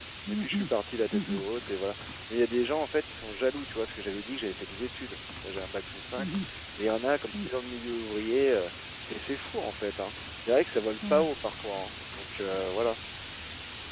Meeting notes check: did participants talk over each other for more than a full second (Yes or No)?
No